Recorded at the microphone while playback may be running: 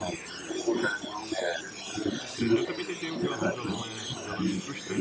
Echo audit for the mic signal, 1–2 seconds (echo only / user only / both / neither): echo only